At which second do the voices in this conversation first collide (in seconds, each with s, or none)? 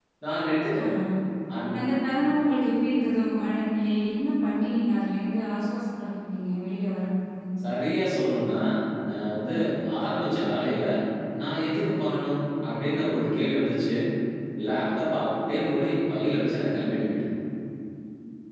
none